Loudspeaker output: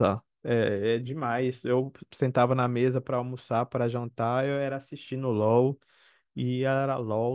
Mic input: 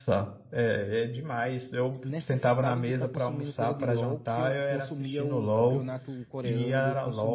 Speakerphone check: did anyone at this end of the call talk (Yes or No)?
Yes